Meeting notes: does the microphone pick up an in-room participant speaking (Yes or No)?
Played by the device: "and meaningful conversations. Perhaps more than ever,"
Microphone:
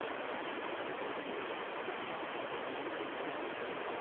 No